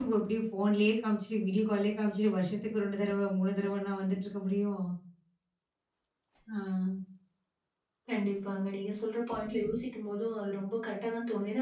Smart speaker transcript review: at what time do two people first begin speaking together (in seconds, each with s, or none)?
none